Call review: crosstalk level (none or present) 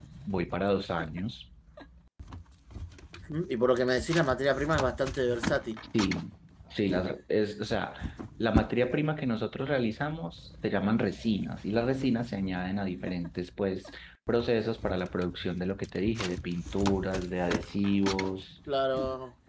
none